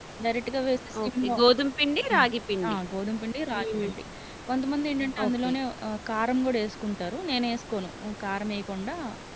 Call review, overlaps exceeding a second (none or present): none